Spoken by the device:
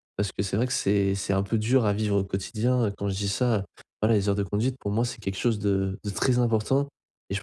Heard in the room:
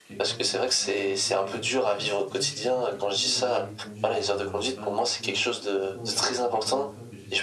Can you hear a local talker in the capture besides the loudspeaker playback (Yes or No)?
Yes